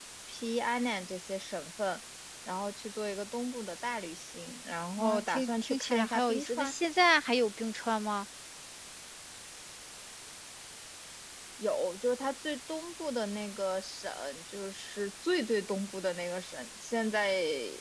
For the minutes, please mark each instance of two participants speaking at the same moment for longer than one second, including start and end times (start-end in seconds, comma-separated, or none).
5.0-6.7